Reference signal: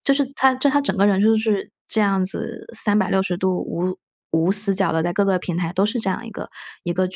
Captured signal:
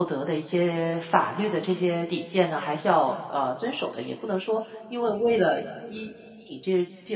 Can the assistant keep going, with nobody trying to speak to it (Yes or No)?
No